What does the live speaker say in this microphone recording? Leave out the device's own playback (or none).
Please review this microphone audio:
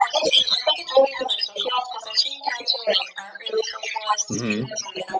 hmm